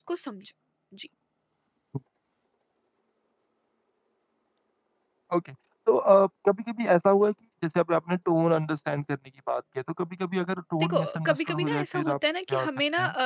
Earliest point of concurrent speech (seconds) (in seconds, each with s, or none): 10.8 s